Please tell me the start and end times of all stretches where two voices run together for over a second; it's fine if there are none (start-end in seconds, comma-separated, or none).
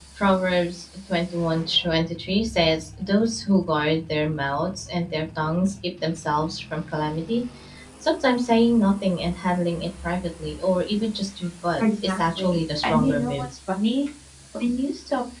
11.8-13.5